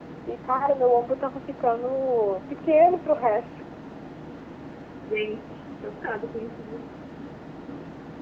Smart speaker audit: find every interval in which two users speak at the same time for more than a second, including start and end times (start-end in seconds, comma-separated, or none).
none